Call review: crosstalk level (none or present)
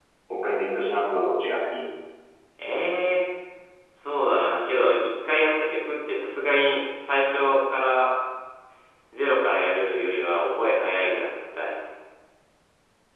none